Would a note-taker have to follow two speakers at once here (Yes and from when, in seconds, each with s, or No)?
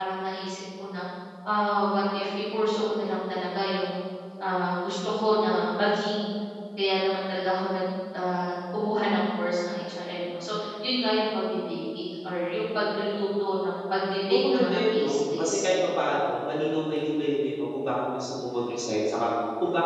Yes, from 14.3 s